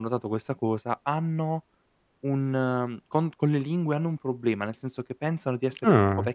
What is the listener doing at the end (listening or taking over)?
listening